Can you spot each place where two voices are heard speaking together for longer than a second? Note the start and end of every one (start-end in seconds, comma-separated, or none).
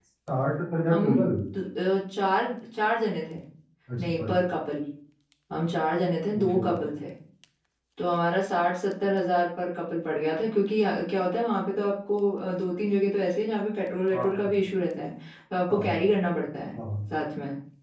none